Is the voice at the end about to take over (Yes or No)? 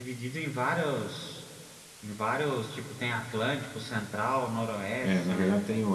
Yes